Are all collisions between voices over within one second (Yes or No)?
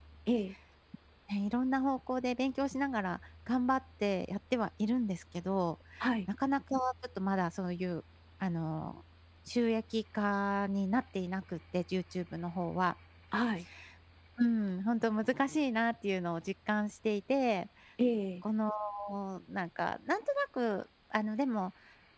Yes